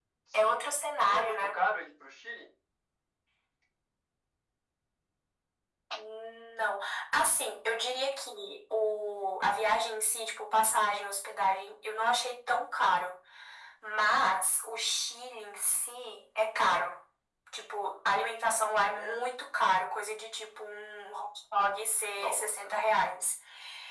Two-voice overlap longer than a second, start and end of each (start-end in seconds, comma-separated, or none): none